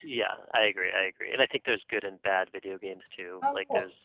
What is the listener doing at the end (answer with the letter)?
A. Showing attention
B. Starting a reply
A